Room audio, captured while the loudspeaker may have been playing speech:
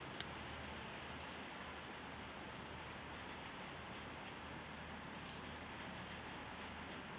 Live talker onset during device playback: none

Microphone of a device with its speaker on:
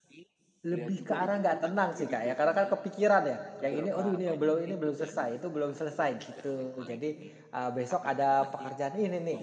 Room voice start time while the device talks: 0.6 s

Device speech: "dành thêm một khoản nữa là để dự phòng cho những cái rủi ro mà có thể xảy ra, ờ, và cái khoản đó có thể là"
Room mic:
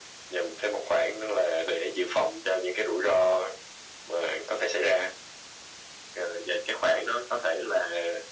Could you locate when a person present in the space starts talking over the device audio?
none

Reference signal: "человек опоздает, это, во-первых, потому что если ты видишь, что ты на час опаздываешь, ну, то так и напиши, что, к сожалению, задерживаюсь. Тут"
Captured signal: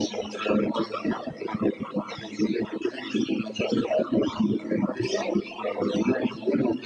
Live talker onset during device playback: none

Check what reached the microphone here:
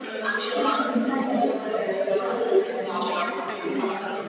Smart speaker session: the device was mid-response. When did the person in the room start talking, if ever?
3.0 s

